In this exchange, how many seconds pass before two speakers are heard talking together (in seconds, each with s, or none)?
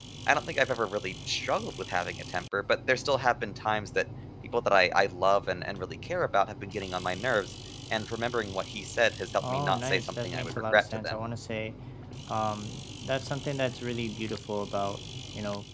9.4 s